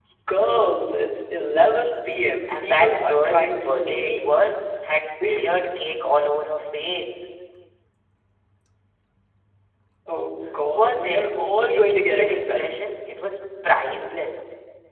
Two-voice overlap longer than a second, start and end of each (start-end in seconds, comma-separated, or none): 2.5-4.4, 10.7-12.7